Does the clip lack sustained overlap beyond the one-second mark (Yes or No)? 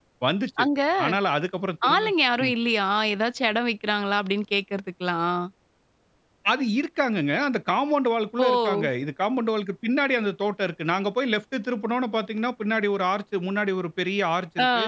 Yes